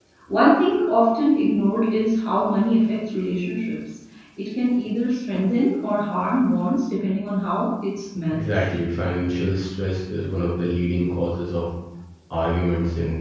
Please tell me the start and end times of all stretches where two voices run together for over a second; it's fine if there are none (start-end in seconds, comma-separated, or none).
none